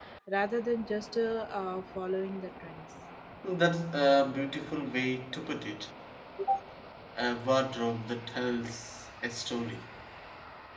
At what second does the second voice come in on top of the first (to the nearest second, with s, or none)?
none